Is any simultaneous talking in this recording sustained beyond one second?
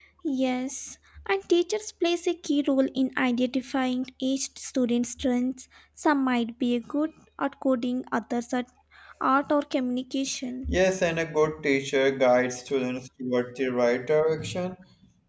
No

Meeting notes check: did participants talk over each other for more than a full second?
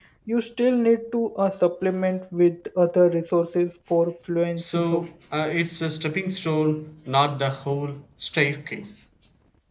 No

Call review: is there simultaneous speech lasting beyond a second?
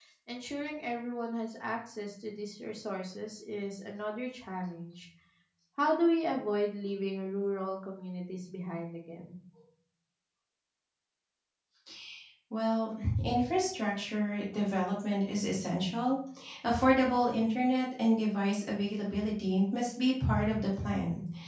No

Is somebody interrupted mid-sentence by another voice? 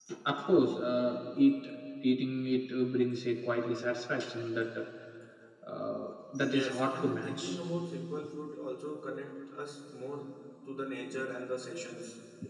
Yes, from 6.4 s

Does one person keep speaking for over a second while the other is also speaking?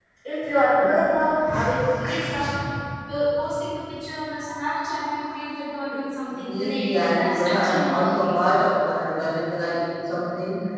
Yes, from 6.3 s

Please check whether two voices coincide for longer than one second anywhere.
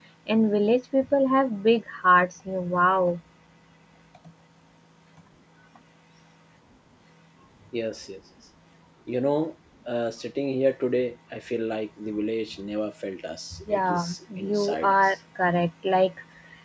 Yes, from 13.5 s

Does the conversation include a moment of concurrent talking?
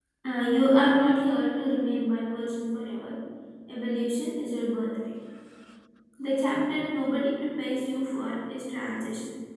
No

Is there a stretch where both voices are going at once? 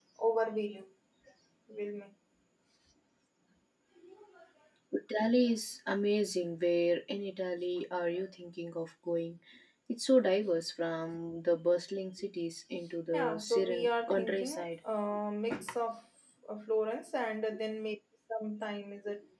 Yes, from 13.1 s

